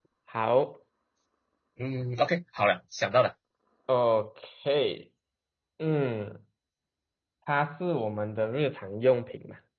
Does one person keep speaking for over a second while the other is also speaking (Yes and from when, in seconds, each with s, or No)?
No